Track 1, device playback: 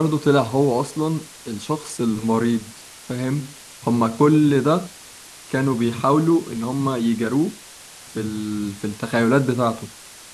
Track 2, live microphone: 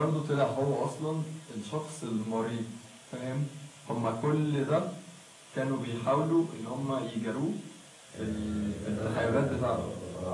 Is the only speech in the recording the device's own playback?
No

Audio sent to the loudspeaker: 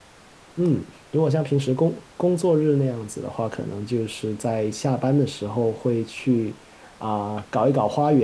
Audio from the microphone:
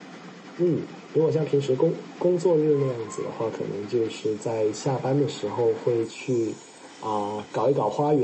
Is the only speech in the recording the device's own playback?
Yes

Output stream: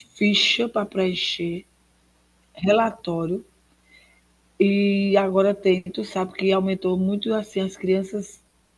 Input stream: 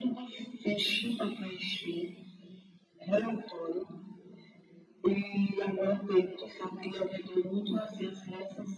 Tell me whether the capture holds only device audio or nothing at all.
Yes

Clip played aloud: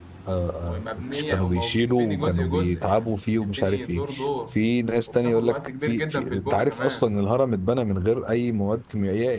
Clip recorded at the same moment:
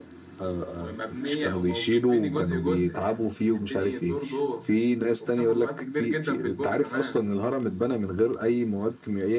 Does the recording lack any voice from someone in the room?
Yes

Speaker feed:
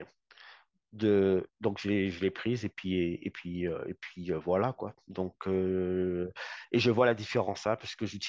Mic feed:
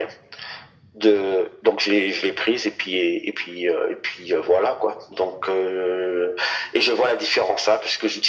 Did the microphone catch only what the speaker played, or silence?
Yes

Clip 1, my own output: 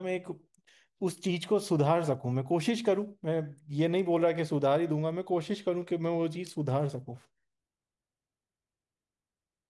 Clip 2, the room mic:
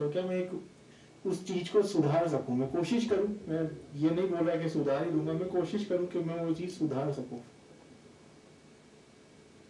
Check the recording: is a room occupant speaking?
No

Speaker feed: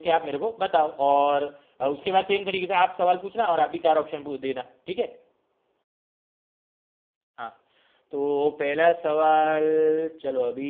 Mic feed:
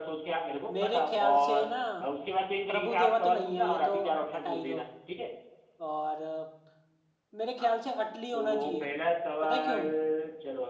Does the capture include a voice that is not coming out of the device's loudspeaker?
Yes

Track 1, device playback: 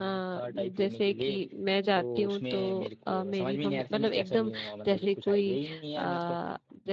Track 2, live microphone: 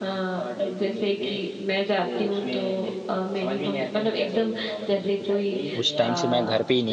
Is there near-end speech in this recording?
Yes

